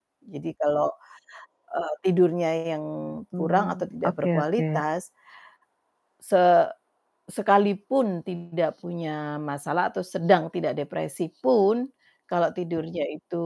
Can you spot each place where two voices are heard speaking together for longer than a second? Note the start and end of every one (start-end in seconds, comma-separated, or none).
3.4-4.8